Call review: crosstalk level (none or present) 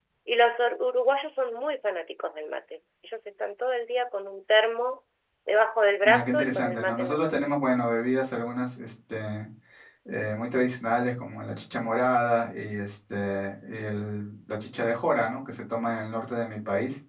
present